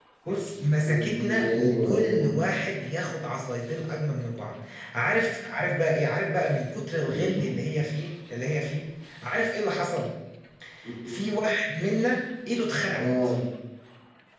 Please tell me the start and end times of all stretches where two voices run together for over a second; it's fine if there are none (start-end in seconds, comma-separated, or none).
0.8-2.4